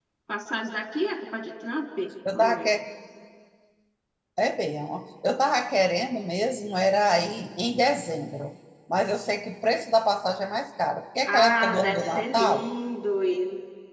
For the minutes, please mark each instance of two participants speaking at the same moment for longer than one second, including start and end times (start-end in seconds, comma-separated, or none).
11.2-12.7